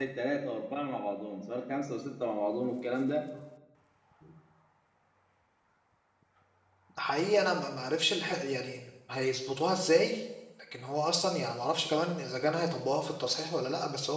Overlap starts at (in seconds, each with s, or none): none